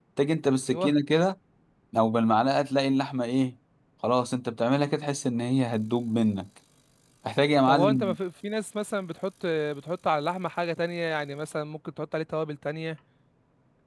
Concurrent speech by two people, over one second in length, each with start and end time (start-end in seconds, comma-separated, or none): none